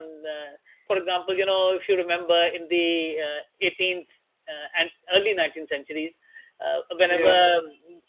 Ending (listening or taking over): listening